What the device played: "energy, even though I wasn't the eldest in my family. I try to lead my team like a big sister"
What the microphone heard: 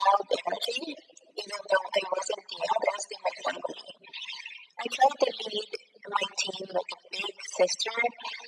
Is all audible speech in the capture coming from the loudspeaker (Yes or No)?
Yes